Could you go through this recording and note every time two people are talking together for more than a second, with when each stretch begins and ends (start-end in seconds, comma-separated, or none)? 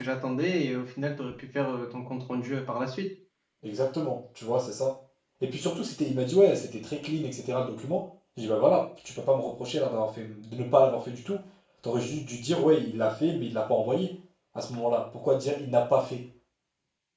none